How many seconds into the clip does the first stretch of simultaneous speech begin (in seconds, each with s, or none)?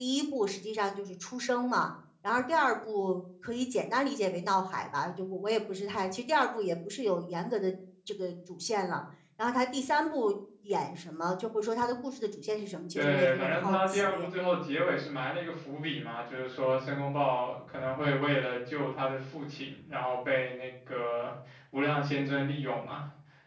12.9 s